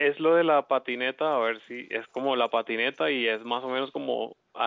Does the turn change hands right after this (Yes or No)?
No